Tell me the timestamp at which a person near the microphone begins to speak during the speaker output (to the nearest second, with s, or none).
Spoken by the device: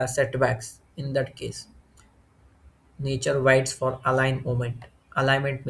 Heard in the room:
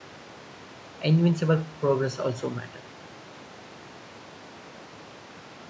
1 s